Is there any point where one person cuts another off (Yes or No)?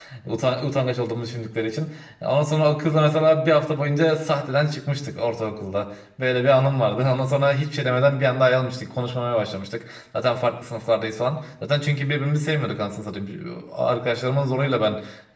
No